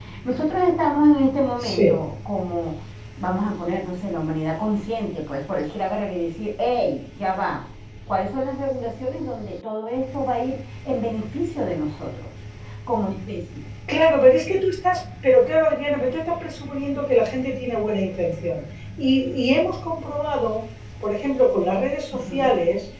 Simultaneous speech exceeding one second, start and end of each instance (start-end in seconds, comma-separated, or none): none